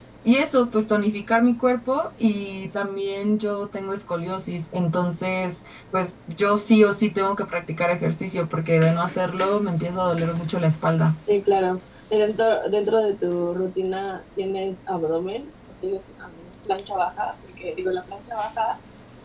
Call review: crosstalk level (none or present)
none